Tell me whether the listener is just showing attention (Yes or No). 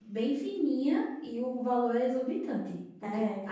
Yes